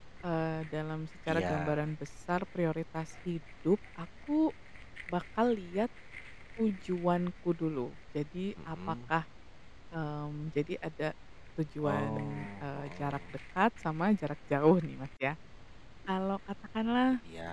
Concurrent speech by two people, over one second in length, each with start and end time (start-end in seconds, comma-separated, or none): 11.8-13.2